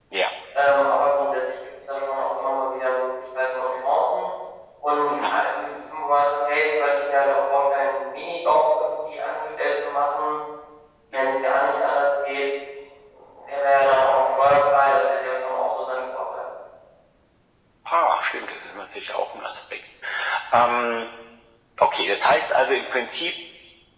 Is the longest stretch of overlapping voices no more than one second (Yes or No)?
Yes